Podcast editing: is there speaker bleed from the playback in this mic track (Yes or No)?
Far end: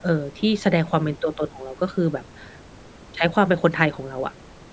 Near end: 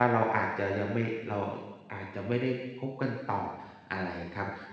No